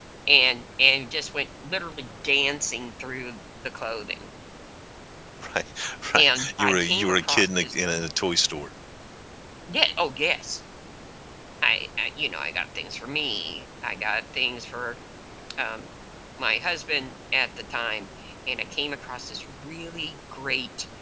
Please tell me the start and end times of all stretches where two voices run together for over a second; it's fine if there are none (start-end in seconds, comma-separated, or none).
6.2-7.7